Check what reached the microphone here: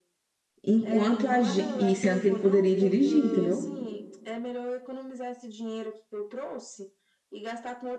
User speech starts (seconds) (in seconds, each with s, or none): 0.6 s